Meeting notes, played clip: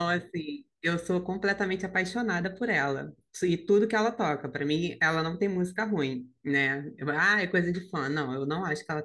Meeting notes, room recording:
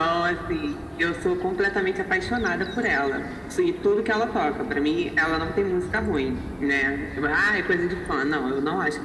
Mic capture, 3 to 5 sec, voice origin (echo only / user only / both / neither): echo only